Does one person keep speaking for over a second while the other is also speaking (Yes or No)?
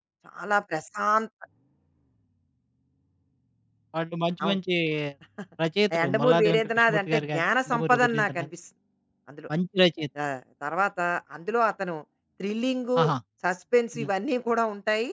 Yes